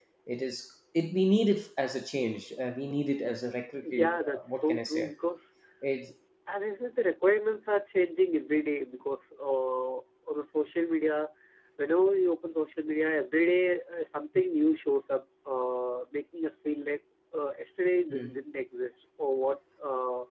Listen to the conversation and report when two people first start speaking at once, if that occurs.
3.8 s

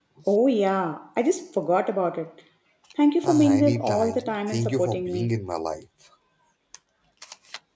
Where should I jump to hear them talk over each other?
3.2 s

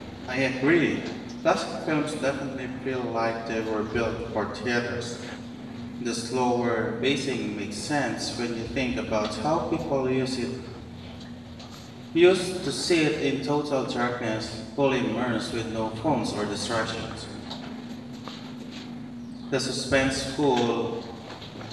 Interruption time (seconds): none

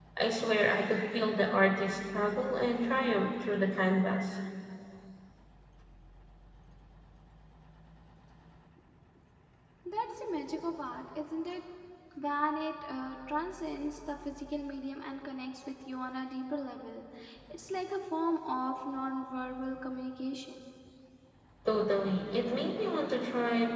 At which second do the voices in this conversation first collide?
none

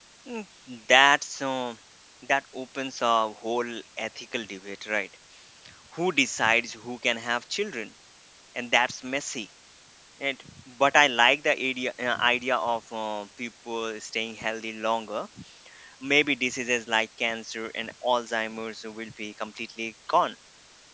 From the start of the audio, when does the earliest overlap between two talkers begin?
none

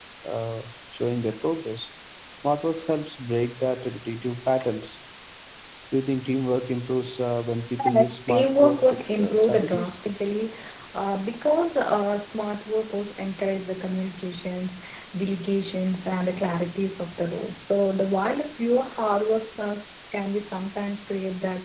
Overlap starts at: 7.8 s

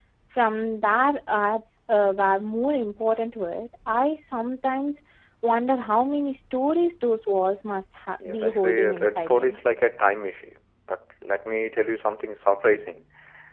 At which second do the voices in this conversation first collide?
8.2 s

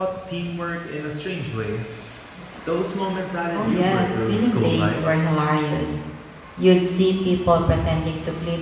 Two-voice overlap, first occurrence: 3.5 s

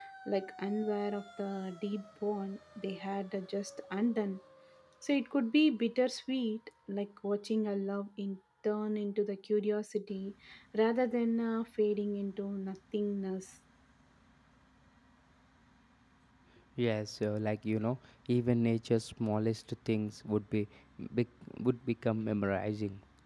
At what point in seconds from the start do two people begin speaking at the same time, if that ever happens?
none

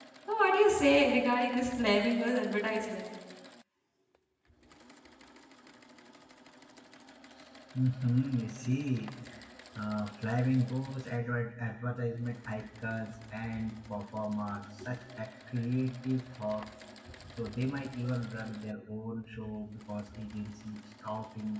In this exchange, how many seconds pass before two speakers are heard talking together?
none

